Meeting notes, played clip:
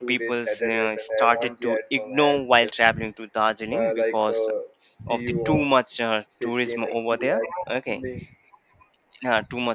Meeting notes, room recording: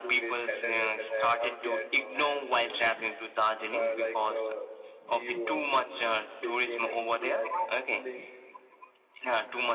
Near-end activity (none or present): none